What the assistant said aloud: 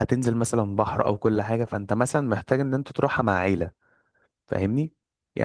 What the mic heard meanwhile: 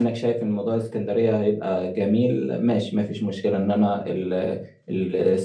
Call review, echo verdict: none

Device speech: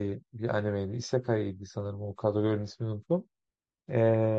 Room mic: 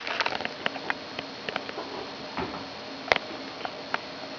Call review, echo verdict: none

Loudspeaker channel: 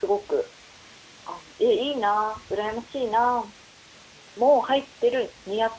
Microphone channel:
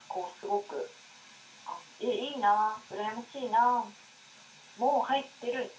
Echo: present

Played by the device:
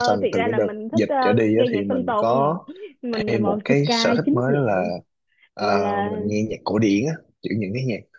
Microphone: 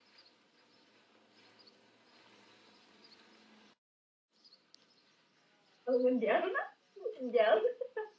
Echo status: none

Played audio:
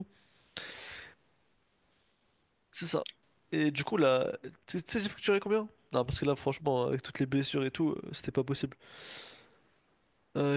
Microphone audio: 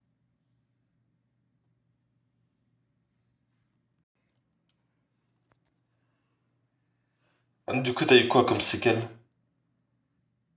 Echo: none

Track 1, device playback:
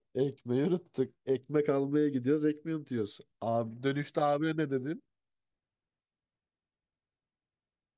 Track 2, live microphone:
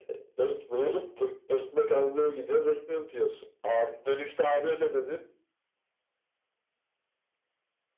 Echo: present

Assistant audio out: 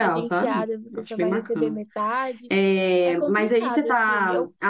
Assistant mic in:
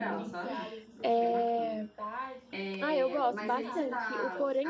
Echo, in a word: present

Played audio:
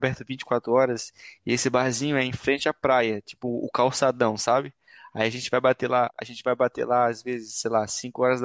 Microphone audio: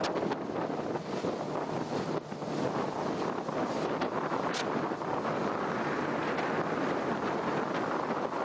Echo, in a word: none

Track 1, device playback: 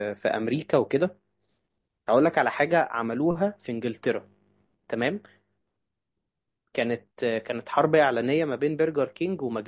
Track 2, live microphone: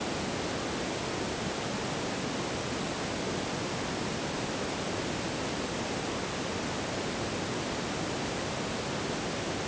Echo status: none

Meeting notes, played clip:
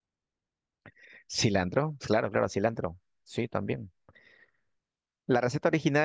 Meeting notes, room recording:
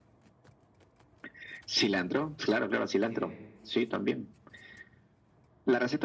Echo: present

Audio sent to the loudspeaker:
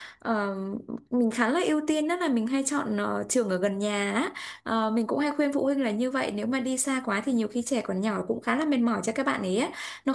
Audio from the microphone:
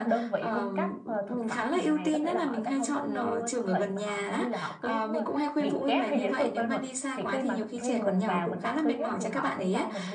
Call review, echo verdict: present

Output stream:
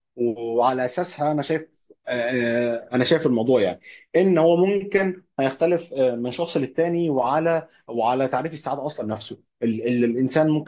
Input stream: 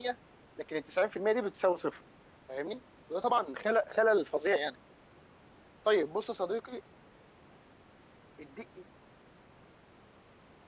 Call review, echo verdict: none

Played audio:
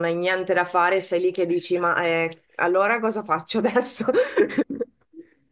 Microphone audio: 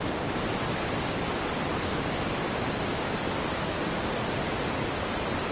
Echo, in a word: none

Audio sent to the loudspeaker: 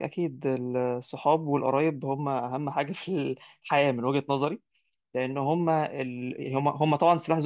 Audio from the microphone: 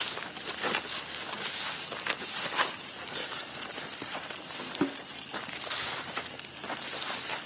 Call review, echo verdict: none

